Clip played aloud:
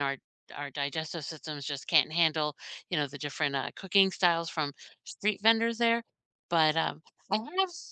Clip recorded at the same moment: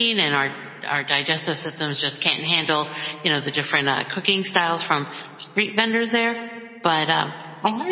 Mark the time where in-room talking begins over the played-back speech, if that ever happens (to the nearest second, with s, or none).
none